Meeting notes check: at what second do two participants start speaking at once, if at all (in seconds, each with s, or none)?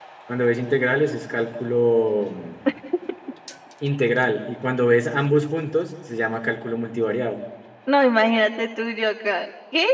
none